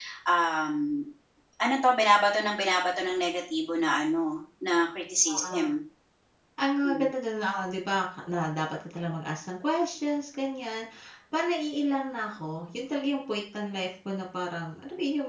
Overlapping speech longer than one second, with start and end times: none

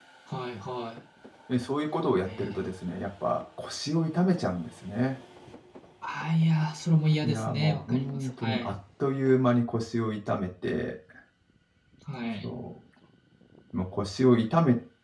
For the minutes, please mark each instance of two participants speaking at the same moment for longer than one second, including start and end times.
7.2-8.7

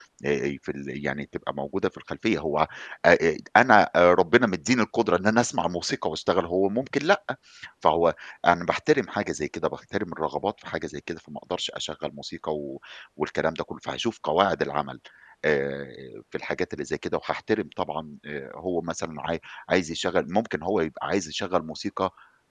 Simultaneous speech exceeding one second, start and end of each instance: none

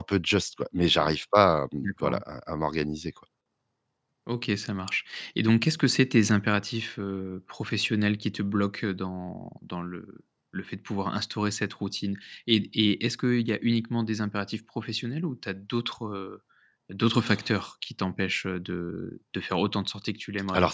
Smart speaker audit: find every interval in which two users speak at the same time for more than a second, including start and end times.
none

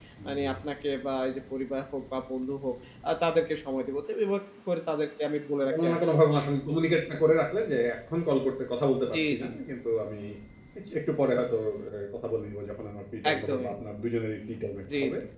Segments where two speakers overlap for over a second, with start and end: none

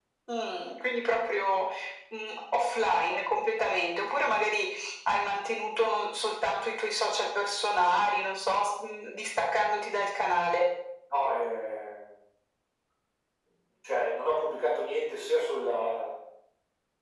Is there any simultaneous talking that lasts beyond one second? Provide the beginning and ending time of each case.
none

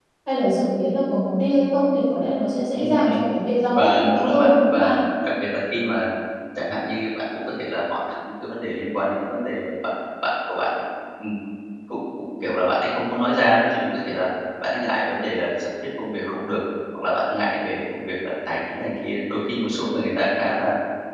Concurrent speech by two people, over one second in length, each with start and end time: 3.7-5.0

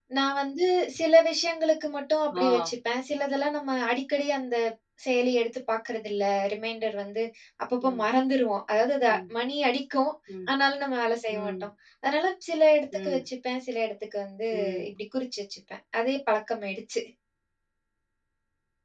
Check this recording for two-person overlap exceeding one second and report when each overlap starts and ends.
none

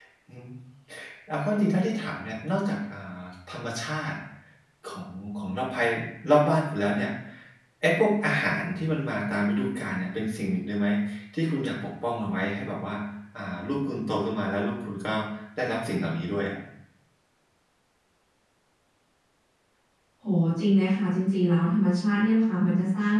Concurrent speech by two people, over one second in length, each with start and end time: none

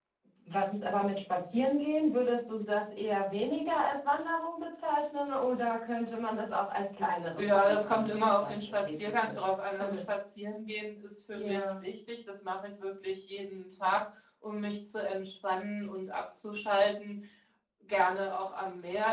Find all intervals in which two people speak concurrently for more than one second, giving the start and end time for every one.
7.4-9.4

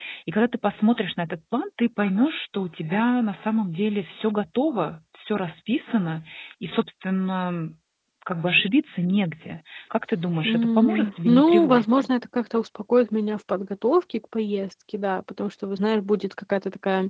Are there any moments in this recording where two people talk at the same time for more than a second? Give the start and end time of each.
10.4-12.1

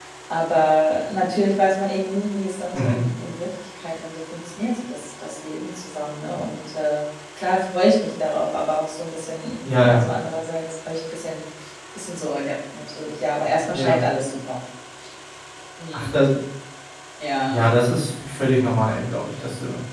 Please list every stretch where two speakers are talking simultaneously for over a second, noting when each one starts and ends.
none

